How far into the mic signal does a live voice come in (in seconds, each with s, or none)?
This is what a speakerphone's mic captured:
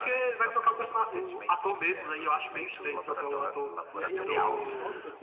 3.9 s